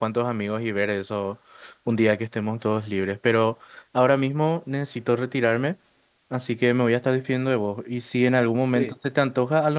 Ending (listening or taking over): listening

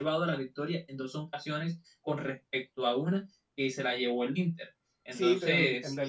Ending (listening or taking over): taking over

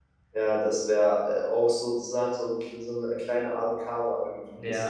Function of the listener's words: taking over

